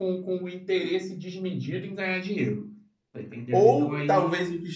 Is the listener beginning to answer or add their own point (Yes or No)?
Yes